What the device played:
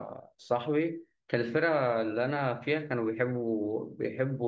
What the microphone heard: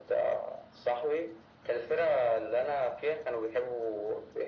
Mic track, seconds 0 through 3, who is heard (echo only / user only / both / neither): echo only